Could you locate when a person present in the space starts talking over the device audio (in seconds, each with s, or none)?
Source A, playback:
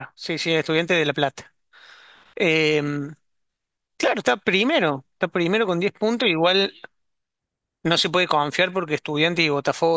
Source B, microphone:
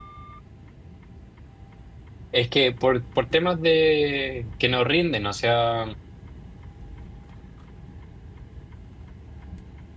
2.3 s